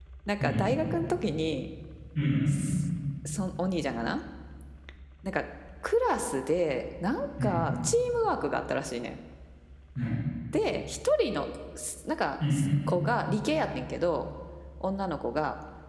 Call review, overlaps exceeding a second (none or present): none